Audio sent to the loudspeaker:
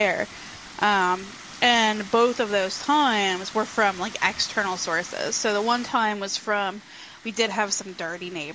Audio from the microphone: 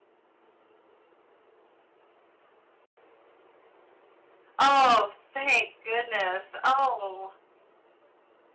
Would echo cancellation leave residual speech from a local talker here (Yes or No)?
Yes